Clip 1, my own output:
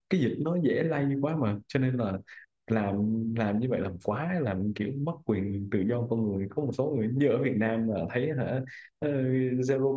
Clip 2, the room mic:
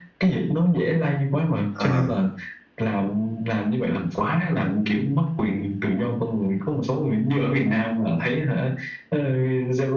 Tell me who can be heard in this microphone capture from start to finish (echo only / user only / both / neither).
both